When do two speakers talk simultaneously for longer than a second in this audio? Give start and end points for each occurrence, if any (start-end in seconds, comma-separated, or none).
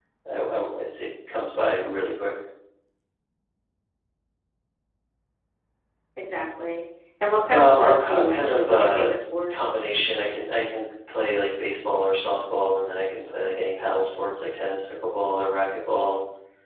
7.5-9.0